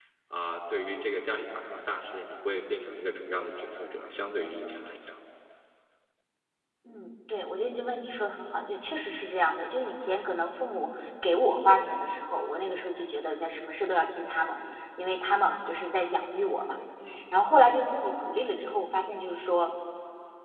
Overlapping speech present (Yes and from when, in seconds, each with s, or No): No